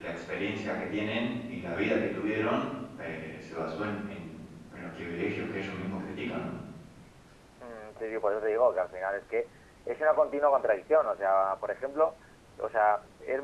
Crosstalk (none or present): none